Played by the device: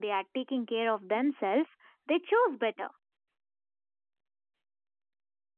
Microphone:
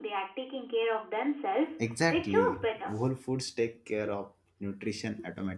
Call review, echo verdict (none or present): present